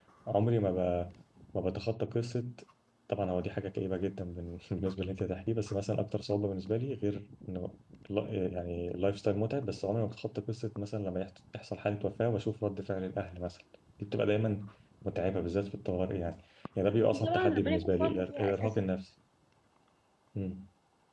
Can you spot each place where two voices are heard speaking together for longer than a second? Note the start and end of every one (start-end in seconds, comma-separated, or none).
17.0-18.8